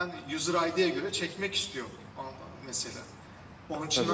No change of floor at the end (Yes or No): No